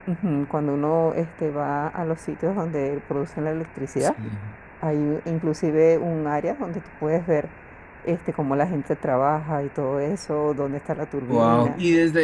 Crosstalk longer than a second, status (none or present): none